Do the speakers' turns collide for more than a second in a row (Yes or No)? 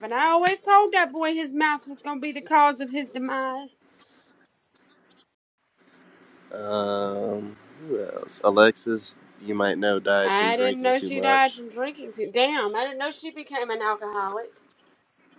Yes